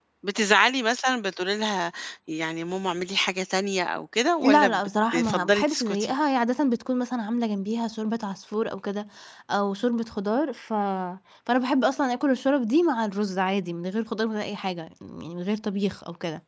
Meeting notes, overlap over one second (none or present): present